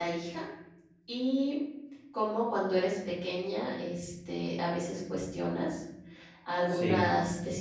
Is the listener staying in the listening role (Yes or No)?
Yes